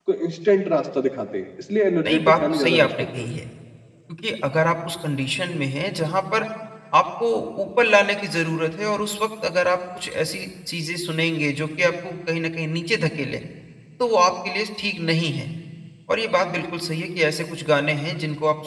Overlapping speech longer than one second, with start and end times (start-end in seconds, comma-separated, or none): 2.0-3.2